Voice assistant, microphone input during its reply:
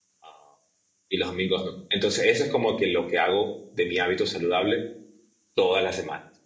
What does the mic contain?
user only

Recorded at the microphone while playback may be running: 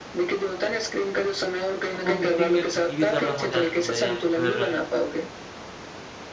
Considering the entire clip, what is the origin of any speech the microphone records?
both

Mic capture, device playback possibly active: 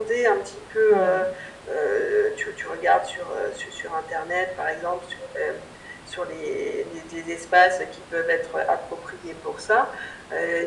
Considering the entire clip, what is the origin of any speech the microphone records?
both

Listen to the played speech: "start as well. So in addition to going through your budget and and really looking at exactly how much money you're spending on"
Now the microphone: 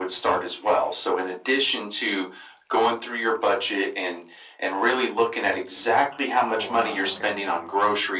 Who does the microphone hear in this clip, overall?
both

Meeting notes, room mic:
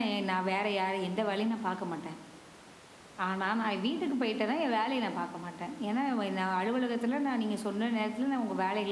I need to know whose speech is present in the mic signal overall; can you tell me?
echo only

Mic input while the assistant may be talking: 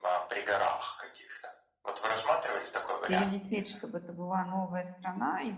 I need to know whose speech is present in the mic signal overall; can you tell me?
both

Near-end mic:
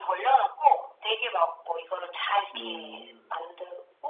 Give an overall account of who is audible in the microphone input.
both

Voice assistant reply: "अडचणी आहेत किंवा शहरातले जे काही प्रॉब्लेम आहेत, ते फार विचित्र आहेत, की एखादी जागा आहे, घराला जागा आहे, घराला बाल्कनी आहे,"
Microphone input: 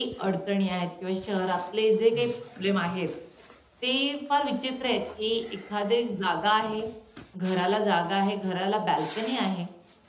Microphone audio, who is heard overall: both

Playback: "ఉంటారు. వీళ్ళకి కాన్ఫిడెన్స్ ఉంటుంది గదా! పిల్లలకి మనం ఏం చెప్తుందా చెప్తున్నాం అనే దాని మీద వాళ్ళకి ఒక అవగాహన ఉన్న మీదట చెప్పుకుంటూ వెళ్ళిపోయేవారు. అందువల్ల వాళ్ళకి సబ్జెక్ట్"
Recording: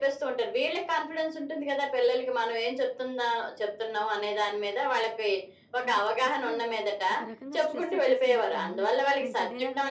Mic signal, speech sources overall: both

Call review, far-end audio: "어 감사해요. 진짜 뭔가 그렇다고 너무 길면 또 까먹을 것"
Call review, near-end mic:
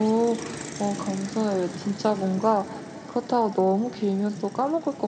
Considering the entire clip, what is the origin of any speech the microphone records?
echo only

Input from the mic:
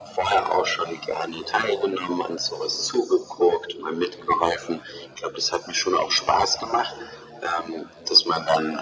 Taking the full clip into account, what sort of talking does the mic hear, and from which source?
echo only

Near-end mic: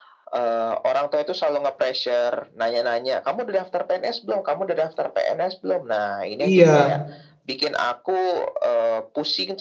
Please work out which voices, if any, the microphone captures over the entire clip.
both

